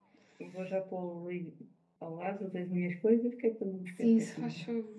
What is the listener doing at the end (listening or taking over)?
taking over